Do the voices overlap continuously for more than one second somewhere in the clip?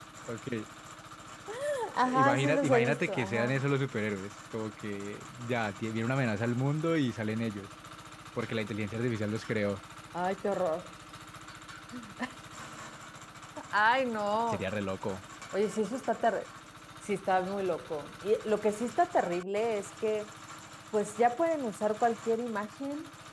Yes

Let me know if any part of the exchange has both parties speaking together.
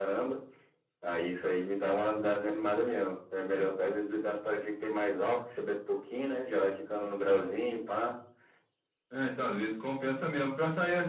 No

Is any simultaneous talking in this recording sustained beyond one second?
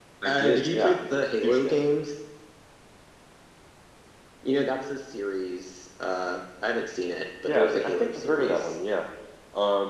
Yes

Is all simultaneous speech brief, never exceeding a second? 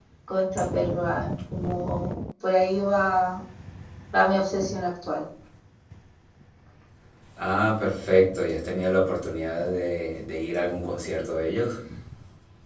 Yes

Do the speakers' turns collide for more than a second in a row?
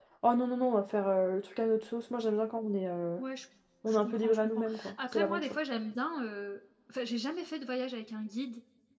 Yes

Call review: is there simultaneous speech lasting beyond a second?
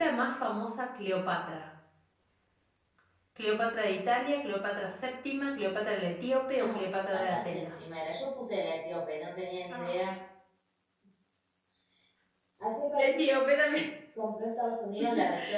Yes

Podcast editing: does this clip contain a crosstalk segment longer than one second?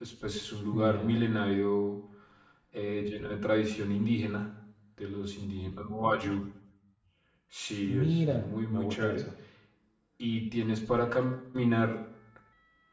Yes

